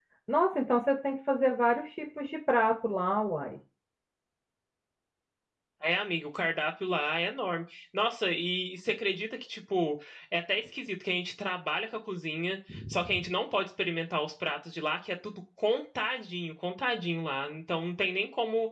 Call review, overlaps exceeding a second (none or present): none